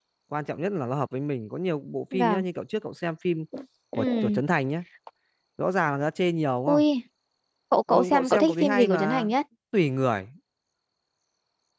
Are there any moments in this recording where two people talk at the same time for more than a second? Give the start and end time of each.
7.9-9.3

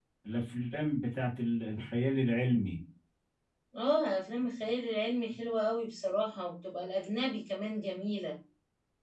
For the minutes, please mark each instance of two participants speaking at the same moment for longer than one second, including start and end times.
none

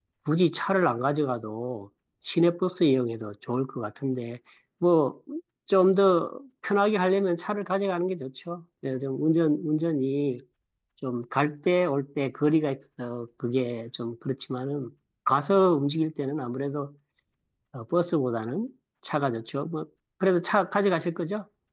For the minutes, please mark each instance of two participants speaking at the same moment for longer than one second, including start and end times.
none

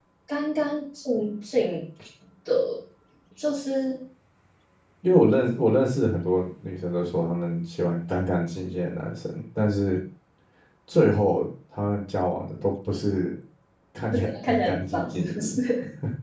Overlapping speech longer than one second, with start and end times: 14.1-15.6

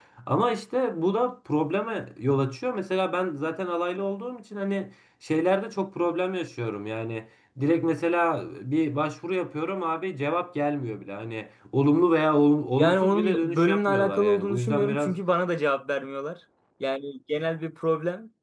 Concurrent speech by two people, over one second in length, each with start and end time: 12.8-15.1

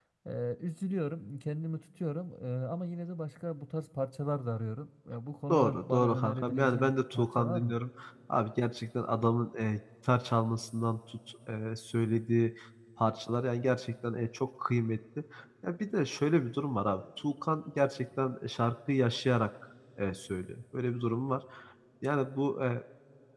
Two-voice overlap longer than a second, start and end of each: 5.5-7.8

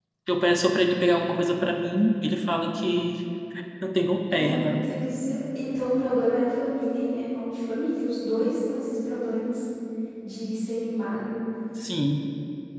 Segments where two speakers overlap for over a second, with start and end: none

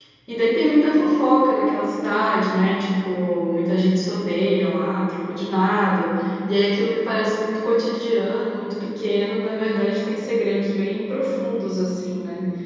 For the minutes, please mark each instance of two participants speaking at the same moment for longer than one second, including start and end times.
none

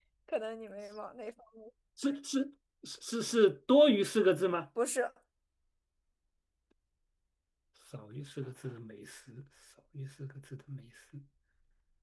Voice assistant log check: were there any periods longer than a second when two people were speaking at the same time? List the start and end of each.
none

